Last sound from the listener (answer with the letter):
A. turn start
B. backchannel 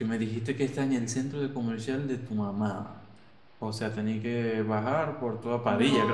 A